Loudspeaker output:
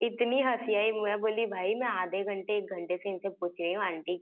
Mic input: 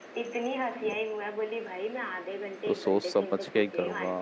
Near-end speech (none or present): present